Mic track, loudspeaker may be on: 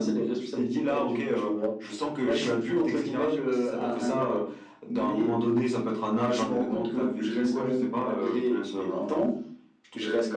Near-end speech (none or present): none